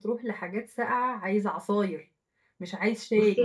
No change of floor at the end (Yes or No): No